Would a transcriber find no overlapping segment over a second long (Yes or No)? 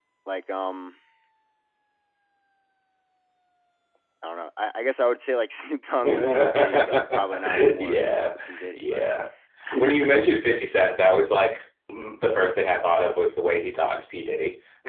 No